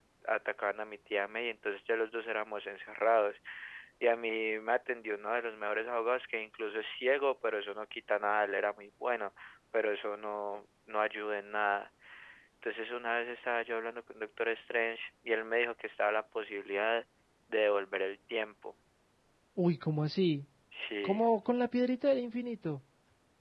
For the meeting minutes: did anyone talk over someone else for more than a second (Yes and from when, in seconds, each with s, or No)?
No